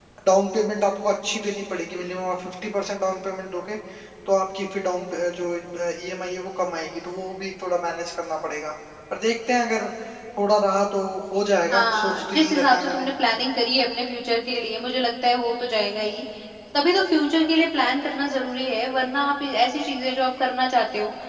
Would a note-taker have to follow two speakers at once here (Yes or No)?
Yes